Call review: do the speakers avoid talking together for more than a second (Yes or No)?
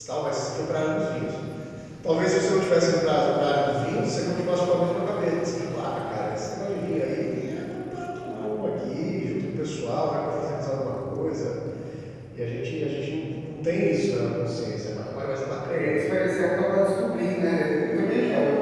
Yes